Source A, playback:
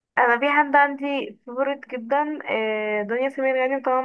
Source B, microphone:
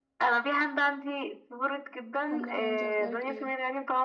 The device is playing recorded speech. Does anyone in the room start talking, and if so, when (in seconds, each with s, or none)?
2.3 s